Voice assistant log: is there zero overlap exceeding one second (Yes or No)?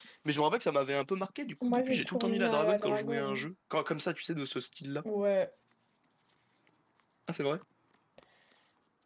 No